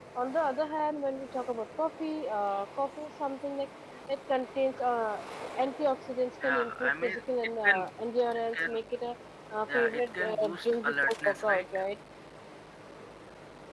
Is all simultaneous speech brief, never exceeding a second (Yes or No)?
No